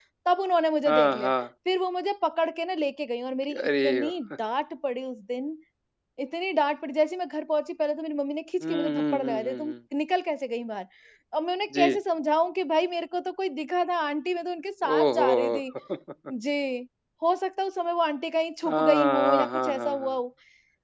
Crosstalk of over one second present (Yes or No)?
Yes